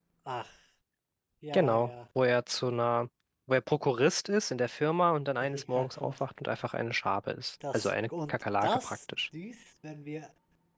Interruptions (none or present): present